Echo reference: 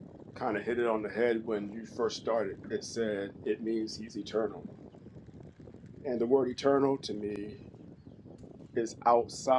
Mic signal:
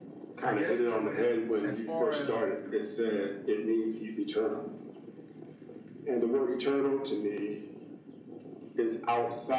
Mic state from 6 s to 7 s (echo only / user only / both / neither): echo only